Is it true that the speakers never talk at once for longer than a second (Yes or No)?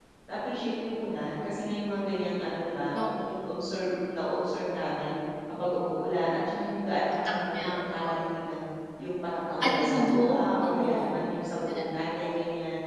No